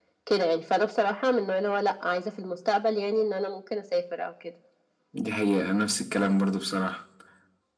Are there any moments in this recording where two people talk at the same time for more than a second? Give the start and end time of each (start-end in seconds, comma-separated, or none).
none